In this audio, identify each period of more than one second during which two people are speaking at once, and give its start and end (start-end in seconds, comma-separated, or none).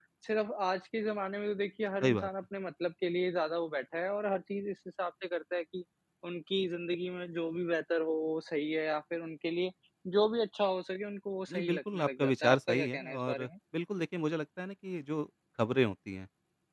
11.5-13.5